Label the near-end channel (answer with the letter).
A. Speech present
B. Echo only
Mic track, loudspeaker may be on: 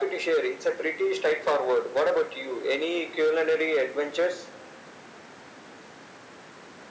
B